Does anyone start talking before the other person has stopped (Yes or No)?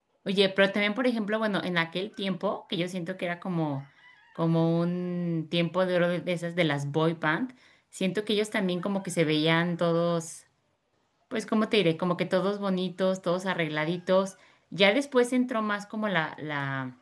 No